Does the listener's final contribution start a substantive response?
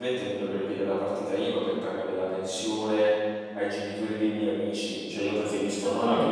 No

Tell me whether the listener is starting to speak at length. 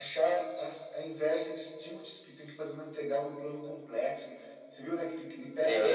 Yes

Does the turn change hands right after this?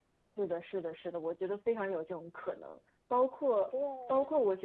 No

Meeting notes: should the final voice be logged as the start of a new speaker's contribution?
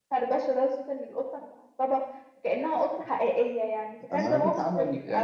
Yes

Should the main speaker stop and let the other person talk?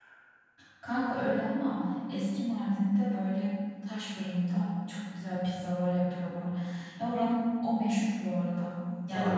No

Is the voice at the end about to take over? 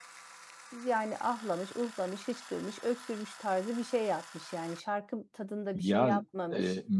Yes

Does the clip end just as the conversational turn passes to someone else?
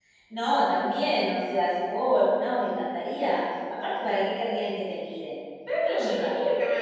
Yes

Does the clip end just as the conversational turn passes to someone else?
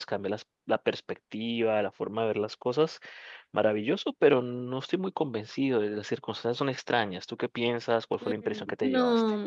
Yes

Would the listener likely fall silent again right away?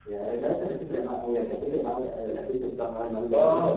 No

